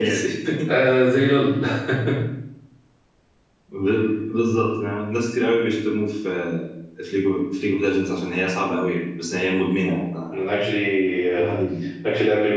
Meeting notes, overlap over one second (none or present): none